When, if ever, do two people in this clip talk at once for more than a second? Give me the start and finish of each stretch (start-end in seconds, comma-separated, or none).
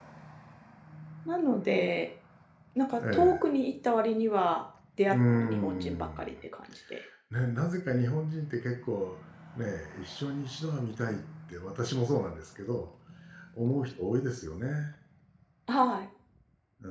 5.1-6.3